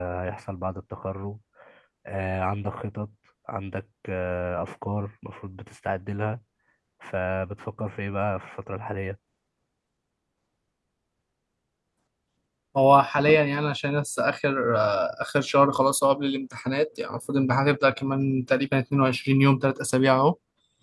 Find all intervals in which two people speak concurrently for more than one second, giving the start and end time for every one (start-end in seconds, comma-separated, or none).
none